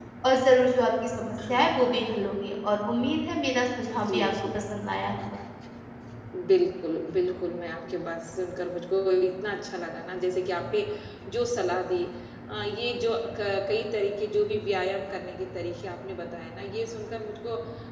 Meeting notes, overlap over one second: none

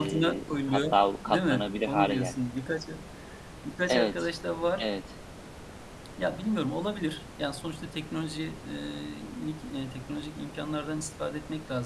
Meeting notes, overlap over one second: present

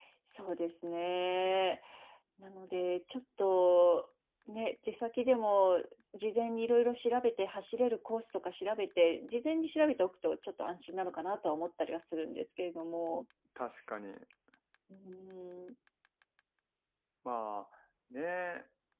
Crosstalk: none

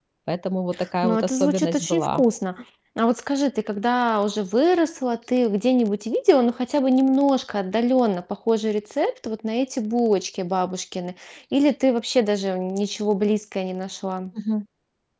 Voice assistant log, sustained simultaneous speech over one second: present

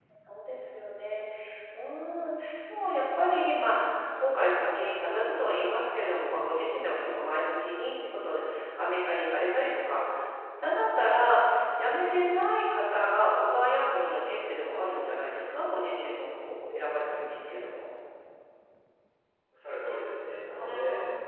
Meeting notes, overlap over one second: none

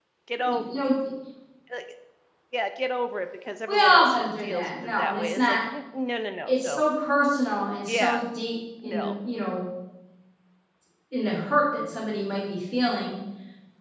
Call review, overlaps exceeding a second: present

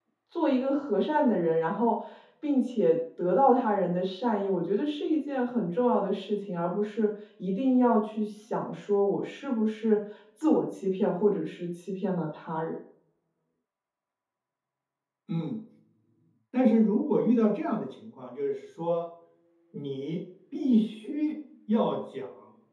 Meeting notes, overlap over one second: none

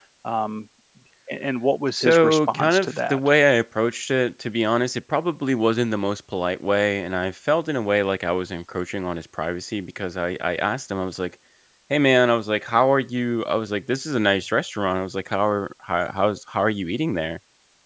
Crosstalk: present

